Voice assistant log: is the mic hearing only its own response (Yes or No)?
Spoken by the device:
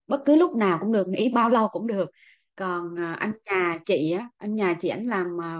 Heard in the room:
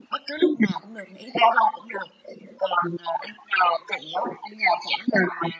Yes